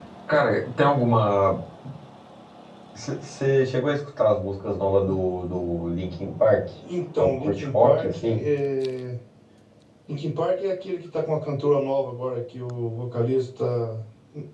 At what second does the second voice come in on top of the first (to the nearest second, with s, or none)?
7 s